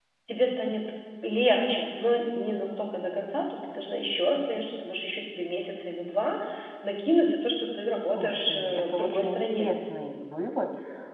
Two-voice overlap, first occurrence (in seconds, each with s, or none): 8.2 s